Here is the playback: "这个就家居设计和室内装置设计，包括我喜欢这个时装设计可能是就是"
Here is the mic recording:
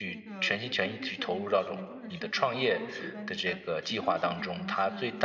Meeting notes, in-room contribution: present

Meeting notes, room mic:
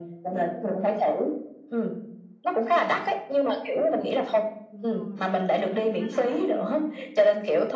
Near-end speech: present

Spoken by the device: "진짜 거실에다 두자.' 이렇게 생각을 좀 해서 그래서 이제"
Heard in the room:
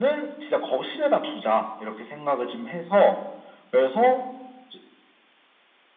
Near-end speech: none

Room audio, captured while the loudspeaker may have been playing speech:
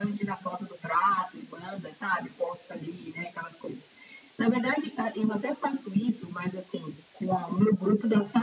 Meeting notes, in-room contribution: none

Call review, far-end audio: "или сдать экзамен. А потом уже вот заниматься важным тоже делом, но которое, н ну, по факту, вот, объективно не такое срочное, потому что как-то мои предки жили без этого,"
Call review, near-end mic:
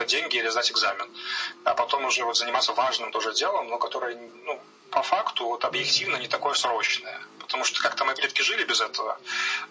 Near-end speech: present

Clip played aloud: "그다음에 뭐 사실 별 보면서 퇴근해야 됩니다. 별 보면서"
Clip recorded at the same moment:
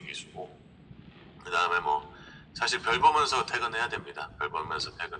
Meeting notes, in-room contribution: none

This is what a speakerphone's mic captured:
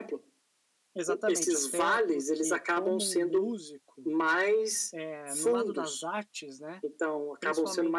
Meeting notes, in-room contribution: present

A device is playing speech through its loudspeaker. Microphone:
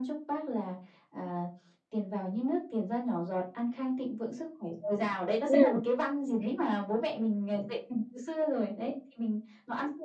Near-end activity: present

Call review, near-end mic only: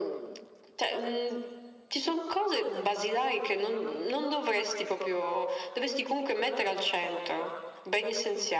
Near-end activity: none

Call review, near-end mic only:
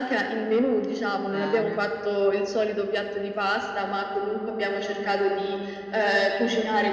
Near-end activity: present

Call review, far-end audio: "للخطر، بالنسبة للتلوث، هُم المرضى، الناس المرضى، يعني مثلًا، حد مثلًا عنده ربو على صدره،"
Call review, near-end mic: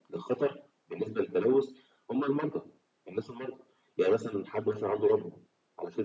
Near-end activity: none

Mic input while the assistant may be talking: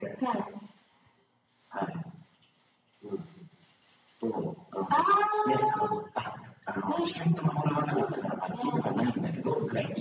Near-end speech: none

